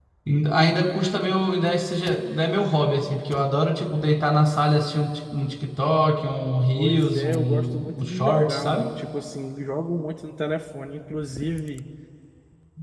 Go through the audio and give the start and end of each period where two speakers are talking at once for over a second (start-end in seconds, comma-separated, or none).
6.8-8.9